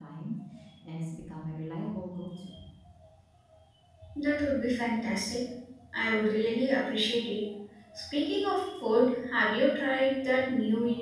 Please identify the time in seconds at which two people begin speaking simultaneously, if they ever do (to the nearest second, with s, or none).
none